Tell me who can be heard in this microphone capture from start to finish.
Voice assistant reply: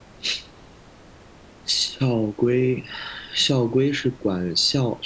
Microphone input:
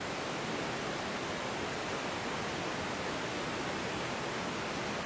neither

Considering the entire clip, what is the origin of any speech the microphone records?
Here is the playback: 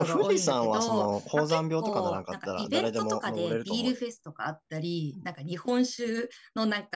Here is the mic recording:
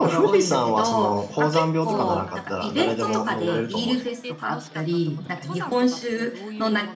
both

